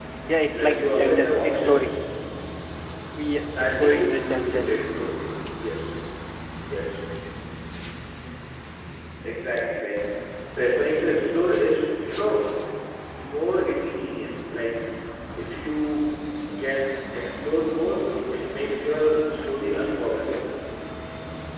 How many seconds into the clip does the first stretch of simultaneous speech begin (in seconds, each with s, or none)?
0.5 s